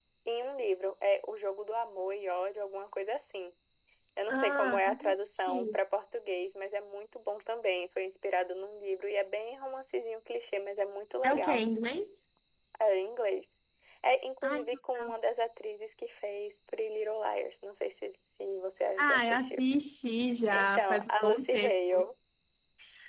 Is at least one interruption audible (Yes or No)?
Yes